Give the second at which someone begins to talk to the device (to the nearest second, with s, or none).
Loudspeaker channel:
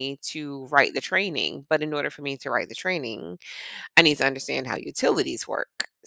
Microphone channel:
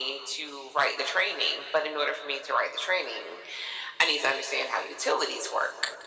none